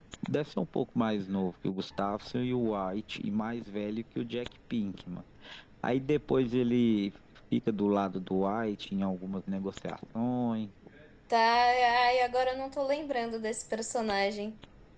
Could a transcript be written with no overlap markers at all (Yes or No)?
Yes